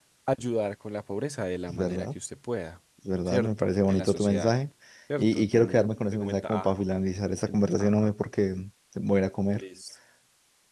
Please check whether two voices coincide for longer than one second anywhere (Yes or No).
Yes